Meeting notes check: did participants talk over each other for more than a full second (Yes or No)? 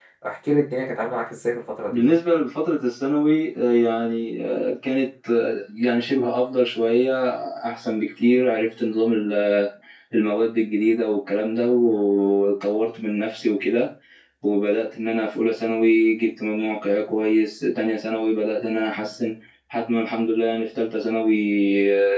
No